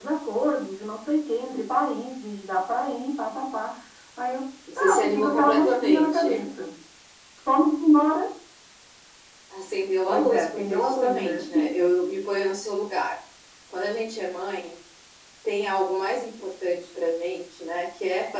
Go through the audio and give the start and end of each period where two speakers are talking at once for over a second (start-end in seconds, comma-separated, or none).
4.8-6.2, 10.1-11.5